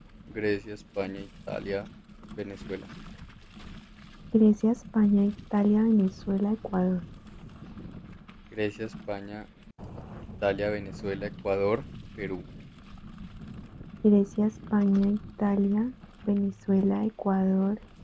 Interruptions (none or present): none